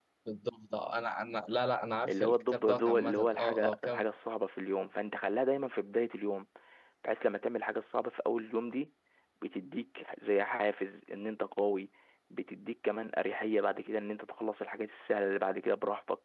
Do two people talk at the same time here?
Yes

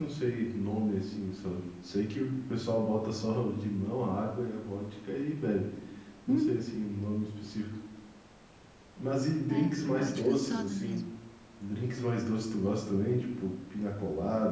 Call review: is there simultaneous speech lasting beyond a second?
Yes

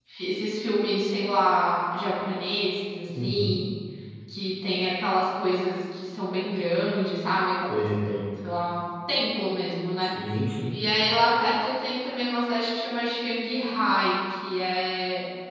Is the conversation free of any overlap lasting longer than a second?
Yes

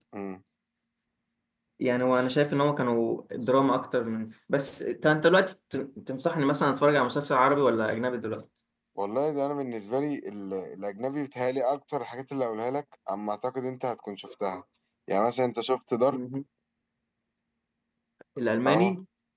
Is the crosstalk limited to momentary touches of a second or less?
Yes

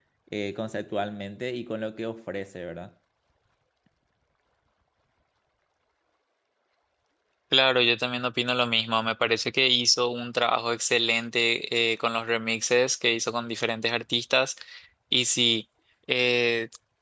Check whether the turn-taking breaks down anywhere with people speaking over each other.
No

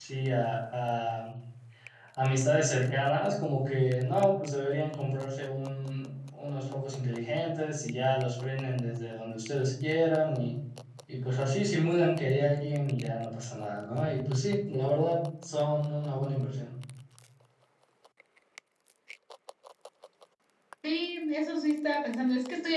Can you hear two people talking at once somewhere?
No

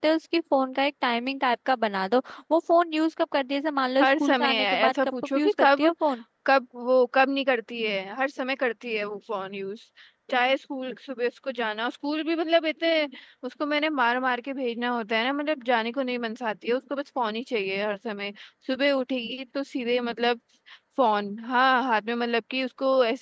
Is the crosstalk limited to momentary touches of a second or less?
No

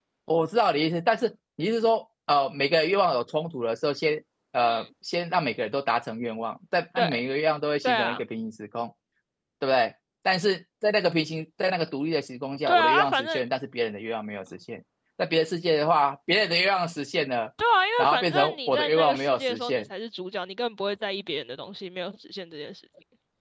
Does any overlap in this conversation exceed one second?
Yes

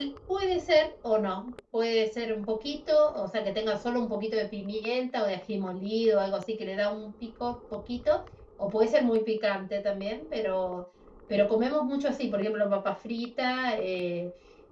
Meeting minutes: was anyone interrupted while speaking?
No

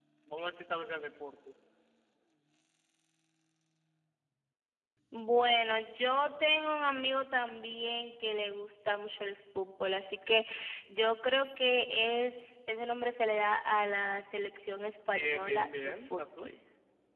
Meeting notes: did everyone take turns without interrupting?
No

